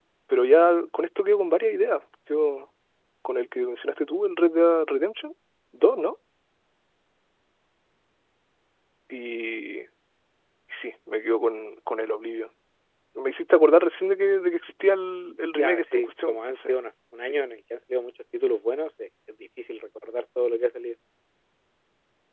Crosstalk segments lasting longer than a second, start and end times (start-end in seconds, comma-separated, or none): 15.6-16.8